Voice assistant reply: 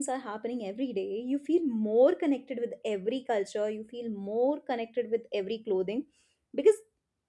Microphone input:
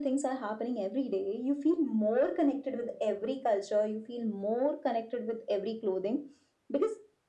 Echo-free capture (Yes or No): No